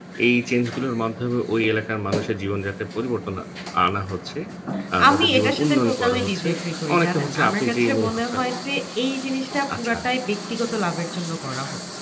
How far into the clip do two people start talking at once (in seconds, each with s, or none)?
5.1 s